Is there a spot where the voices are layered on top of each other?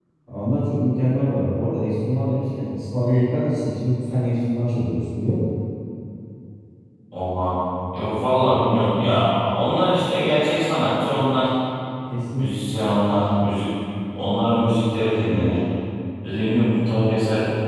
No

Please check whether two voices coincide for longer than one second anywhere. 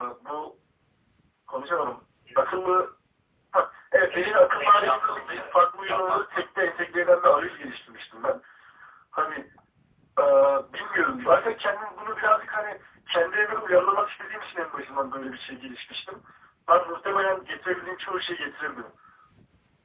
Yes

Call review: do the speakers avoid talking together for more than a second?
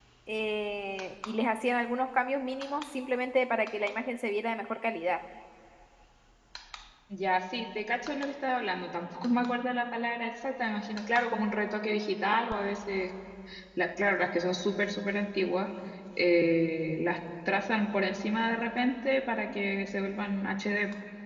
Yes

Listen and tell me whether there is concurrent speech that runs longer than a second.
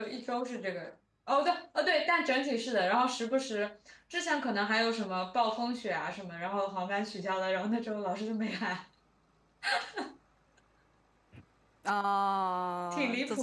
No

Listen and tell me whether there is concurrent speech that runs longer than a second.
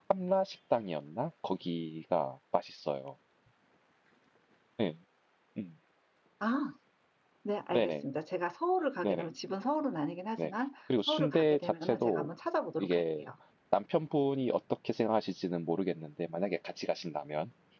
Yes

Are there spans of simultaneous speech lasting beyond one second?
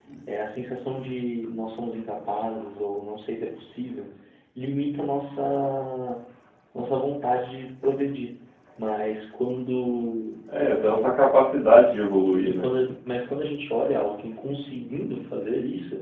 No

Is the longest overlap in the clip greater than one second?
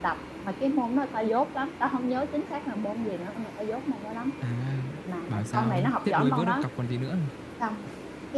Yes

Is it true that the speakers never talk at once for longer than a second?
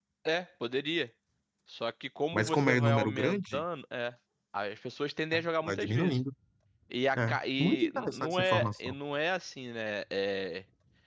No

